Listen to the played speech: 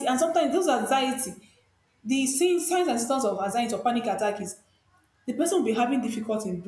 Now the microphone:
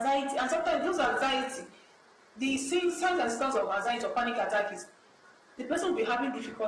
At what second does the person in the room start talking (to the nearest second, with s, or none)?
none